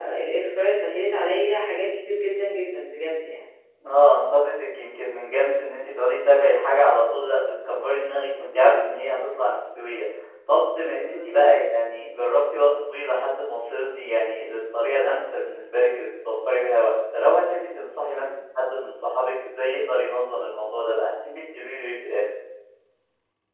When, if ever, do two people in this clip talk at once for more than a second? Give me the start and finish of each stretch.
none

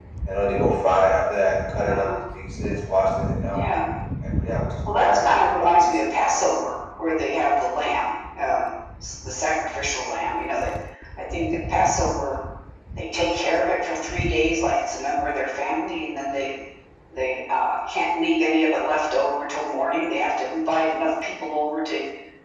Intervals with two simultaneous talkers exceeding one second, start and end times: 4.9-6.5

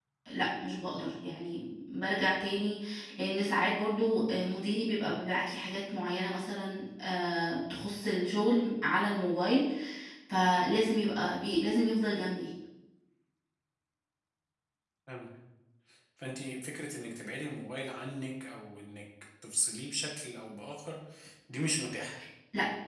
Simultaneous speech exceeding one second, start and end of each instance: none

